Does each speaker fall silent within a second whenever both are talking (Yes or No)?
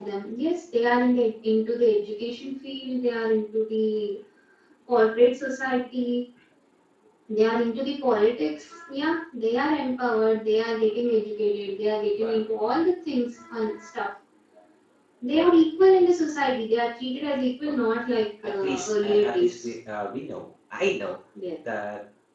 No